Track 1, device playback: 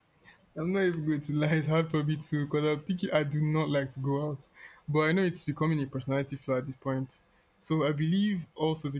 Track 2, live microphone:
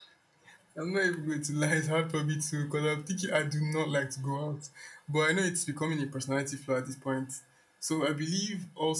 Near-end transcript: none

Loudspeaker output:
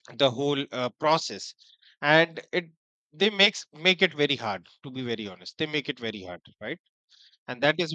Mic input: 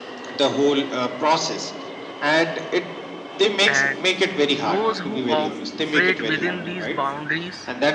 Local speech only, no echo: and those who operate within these boundaries

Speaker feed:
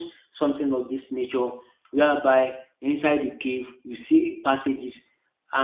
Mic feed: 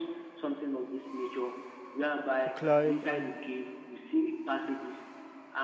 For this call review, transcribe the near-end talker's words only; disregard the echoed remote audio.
to climb and

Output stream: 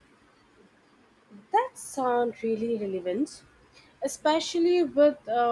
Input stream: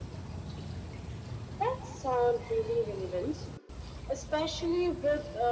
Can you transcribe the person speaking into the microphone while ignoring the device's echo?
none

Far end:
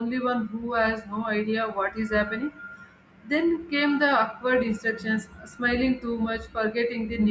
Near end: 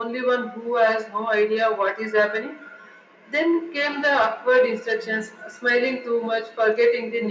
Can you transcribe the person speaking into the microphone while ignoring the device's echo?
none

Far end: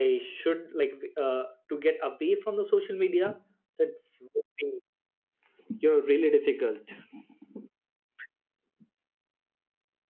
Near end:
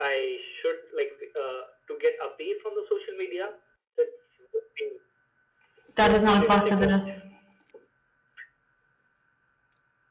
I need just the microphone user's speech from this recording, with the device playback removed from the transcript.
that is not possible.

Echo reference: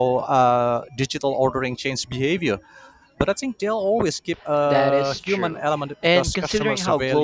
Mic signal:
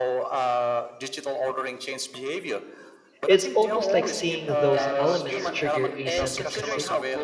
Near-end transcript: It's almost like seeing those elements trigger a sense of consi-

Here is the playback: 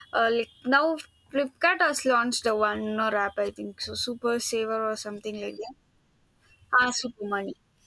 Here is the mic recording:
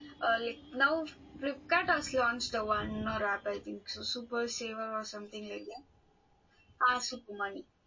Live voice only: none

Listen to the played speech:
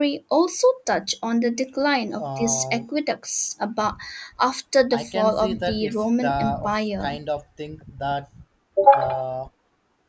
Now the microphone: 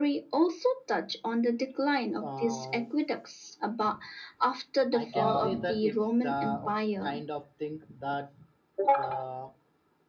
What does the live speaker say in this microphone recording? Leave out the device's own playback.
uh,

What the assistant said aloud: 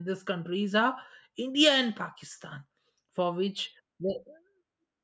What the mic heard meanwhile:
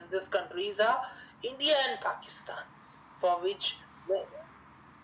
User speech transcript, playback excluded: none

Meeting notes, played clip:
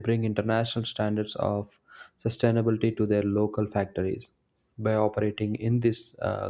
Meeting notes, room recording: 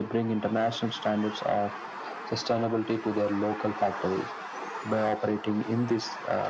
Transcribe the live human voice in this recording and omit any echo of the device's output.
none

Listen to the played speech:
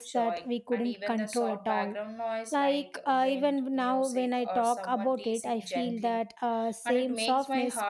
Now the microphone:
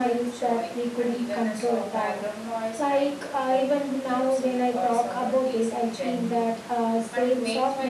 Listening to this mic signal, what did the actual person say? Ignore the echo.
none

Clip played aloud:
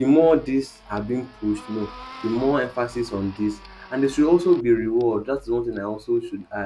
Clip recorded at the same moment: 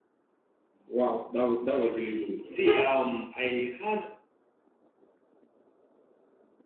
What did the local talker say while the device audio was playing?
Wow, that was, that was really good. See, um, I had

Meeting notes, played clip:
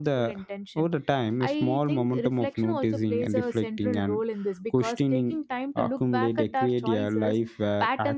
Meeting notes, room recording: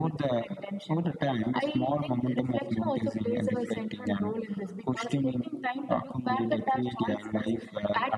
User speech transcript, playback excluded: none

